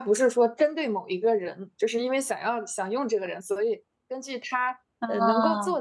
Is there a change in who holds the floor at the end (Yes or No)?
No